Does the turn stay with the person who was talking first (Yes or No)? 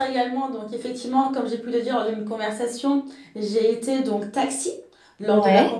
Yes